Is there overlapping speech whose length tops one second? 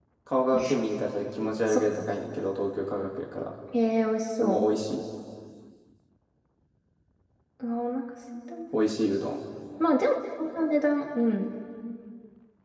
No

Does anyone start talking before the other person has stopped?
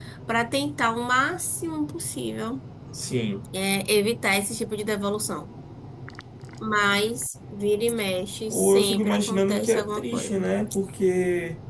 Yes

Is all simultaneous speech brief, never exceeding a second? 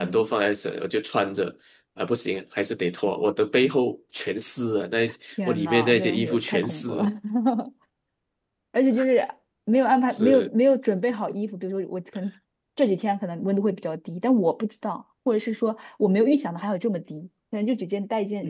No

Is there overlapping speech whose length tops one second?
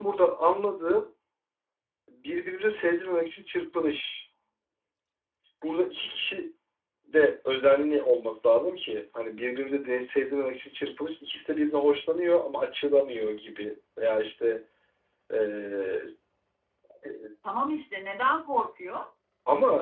No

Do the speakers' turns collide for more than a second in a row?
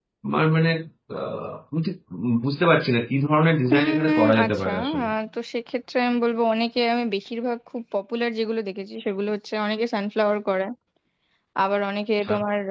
Yes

